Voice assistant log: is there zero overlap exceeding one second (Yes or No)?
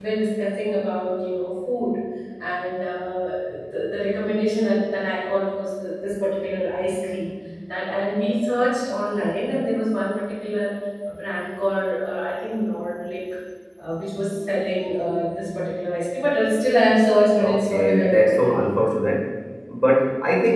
No